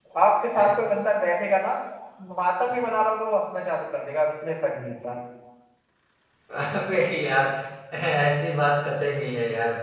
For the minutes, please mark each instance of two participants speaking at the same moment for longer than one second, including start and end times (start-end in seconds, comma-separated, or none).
none